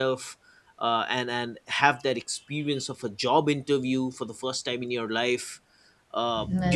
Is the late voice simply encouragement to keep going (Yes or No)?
Yes